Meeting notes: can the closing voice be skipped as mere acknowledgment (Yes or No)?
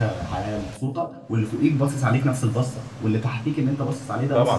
No